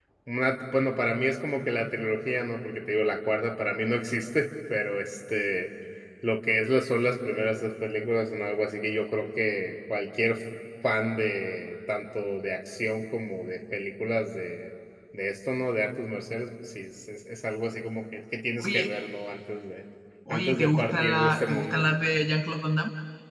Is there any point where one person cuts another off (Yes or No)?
Yes